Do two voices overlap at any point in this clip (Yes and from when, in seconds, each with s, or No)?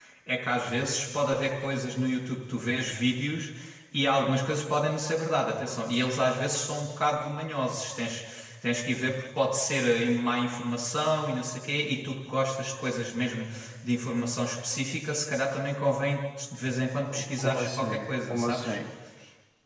Yes, from 17.4 s